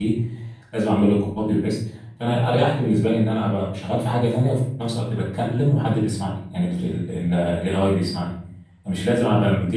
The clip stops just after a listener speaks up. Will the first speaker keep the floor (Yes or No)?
Yes